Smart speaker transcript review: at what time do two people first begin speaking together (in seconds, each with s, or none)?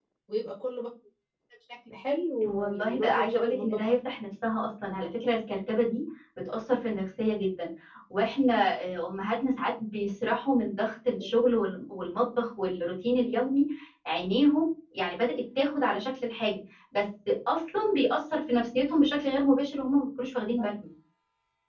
2.4 s